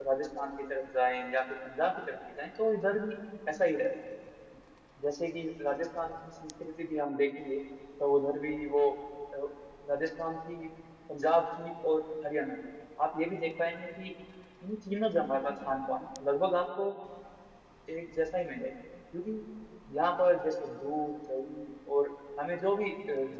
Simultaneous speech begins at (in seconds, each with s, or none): none